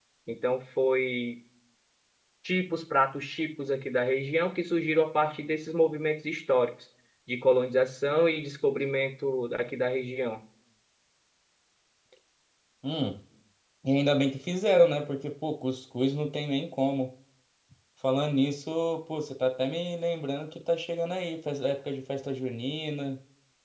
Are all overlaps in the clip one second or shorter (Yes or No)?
Yes